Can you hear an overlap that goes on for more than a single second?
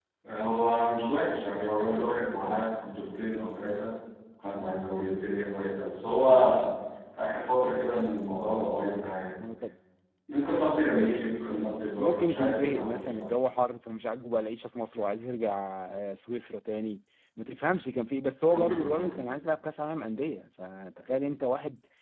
Yes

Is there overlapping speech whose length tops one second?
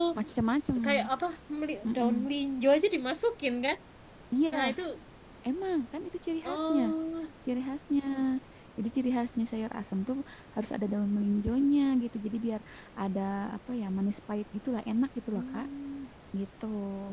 No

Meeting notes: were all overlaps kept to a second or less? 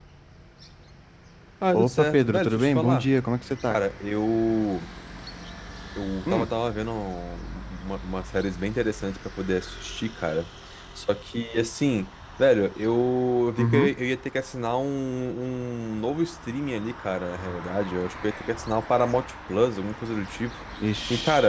No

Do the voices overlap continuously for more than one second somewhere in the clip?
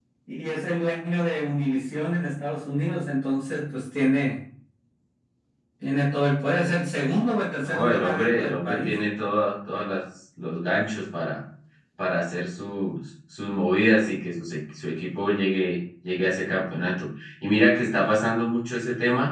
Yes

